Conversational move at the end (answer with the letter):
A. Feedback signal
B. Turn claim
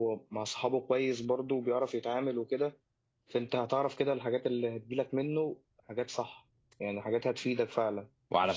B